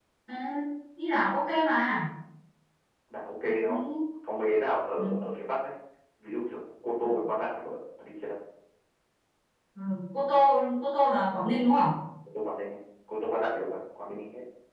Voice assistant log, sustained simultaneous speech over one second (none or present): none